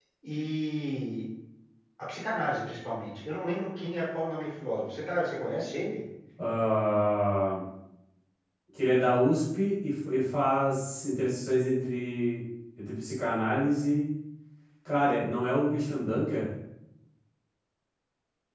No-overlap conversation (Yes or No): Yes